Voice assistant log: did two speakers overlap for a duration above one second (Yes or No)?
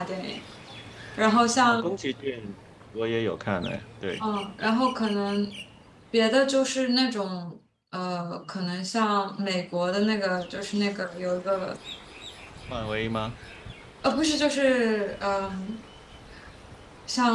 No